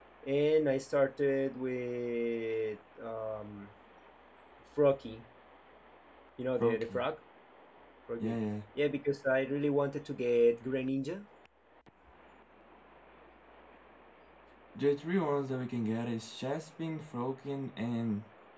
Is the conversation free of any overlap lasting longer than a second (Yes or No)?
Yes